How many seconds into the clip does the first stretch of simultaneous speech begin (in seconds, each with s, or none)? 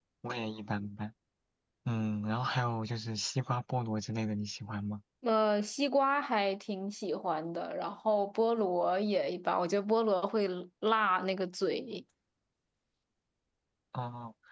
none